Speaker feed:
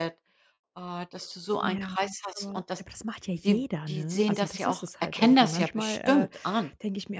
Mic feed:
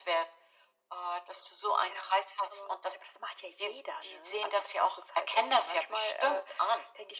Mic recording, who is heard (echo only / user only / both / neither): echo only